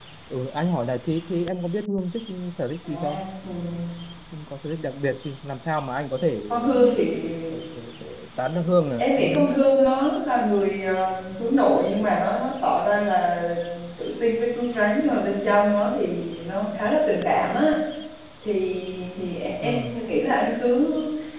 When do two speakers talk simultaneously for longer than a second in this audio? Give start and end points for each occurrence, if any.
none

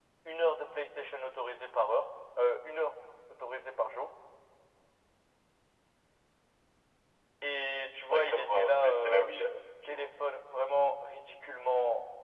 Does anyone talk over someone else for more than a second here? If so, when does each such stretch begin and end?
7.9-9.3

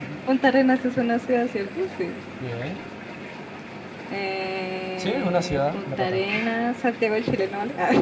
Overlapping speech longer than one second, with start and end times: 5.0-6.4

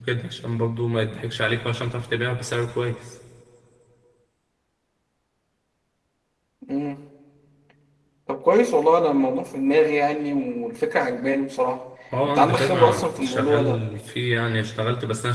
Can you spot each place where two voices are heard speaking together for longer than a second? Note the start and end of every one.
12.2-13.8

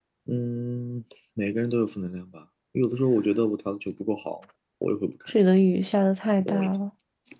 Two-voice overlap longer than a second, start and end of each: none

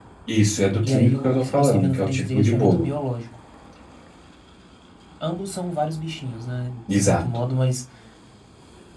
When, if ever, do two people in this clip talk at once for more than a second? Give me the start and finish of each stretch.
0.9-2.9

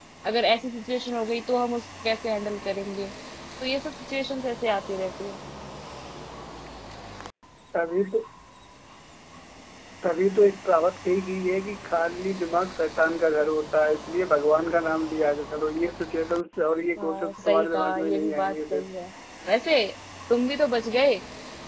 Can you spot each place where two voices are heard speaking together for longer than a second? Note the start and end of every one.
17.0-18.8

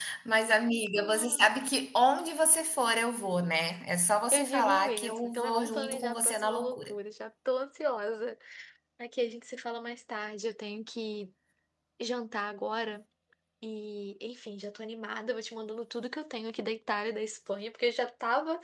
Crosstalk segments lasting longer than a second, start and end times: 4.3-6.9

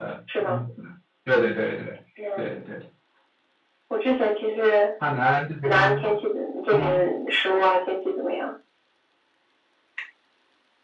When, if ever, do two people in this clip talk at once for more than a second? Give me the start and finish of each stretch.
none

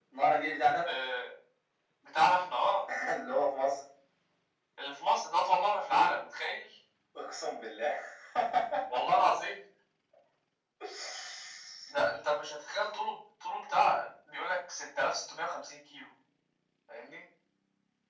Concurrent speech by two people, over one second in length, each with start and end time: none

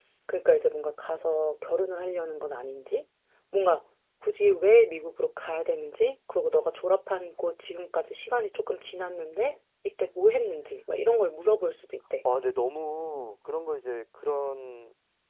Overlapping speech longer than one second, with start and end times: none

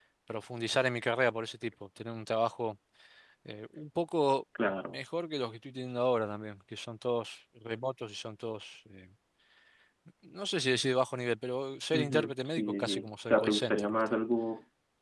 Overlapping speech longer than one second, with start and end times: 11.9-14.2

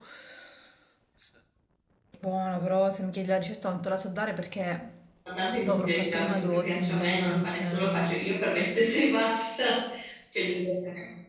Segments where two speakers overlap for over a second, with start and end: 5.6-8.1

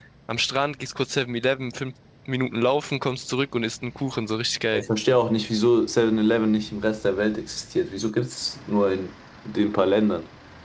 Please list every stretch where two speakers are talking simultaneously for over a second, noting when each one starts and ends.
none

